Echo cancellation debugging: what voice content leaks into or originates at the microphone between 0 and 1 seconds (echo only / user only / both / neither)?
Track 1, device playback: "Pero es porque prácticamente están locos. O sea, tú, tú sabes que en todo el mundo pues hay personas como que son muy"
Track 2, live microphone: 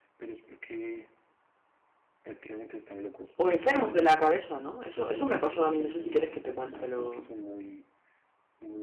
echo only